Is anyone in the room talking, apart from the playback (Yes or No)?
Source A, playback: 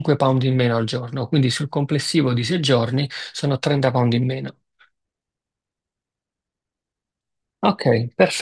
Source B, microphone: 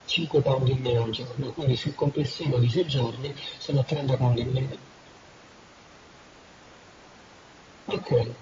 No